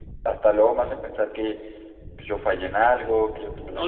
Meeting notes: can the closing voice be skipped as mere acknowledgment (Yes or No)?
No